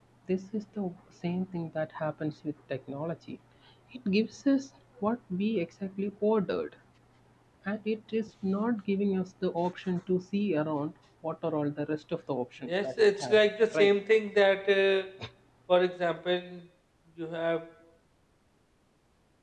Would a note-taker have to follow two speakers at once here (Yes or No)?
Yes